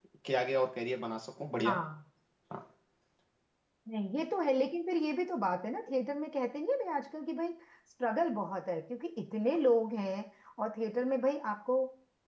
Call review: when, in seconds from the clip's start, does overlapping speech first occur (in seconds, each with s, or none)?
none